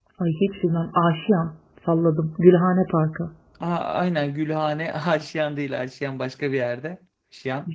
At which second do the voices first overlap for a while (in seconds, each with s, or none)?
none